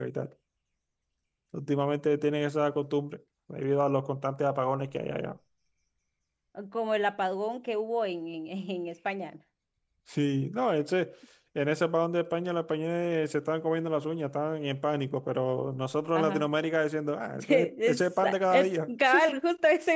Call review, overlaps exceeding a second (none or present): present